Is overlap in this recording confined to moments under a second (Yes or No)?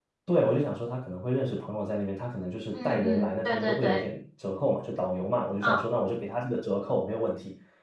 No